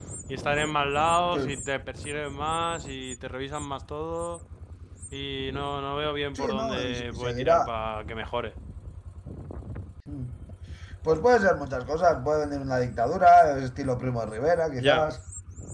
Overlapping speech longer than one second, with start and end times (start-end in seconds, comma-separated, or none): 6.3-7.7